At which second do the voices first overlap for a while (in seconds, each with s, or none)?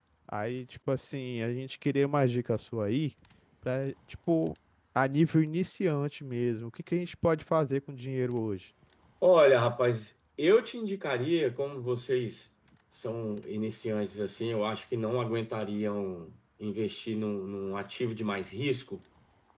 none